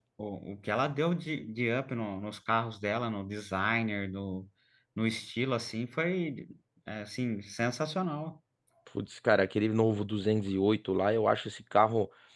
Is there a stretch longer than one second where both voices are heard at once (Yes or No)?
No